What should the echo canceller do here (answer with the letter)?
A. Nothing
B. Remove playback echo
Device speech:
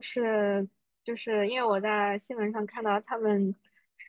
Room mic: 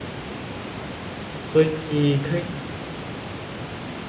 A